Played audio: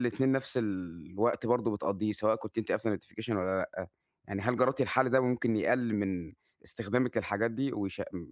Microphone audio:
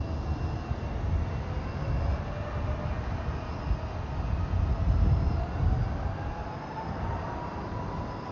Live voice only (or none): none